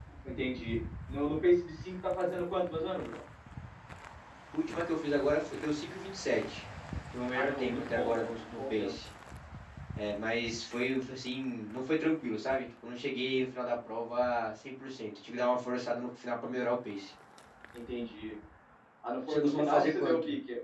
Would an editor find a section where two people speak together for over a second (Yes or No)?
Yes